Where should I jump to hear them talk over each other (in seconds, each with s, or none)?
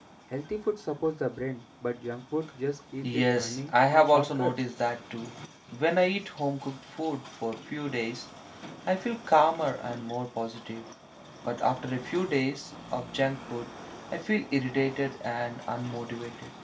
3.0 s